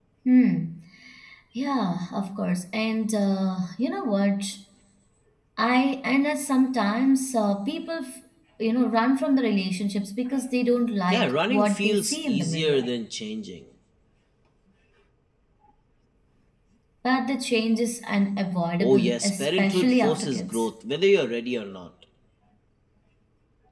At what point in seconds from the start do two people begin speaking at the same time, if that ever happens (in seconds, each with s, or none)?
11.1 s